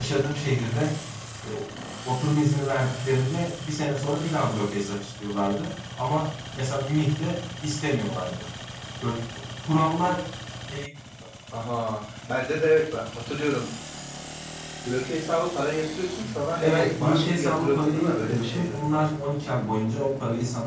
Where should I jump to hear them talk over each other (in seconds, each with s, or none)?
16.6 s